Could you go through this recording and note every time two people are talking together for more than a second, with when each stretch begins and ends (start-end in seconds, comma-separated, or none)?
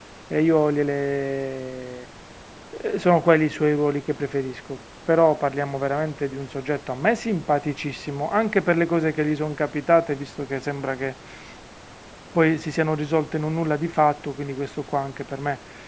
none